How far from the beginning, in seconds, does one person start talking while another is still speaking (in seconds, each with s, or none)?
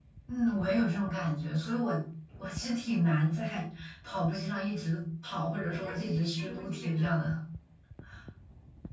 5.7 s